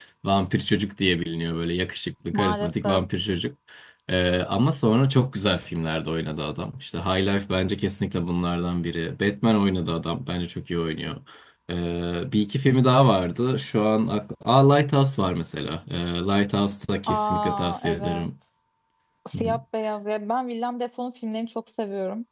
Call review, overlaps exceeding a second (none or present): present